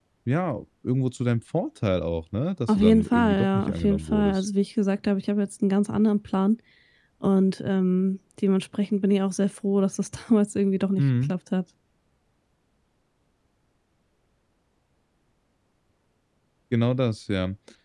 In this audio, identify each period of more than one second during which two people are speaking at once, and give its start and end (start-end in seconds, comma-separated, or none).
2.7-4.4